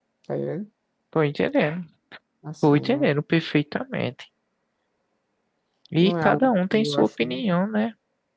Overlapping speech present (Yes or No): Yes